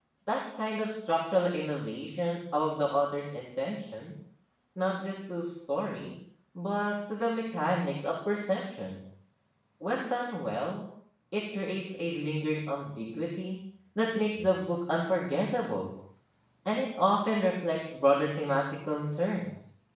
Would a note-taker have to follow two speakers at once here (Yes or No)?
No